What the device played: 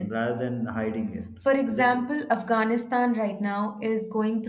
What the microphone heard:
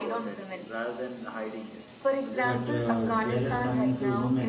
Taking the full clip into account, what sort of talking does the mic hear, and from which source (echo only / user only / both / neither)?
both